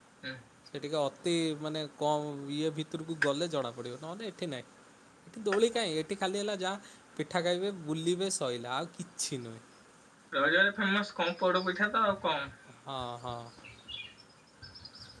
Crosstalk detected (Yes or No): No